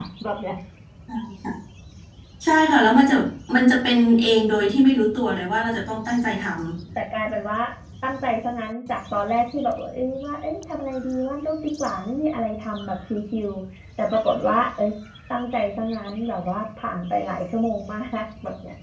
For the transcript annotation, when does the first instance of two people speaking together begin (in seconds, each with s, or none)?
none